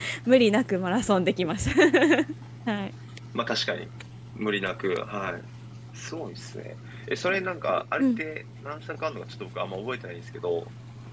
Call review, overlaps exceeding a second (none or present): none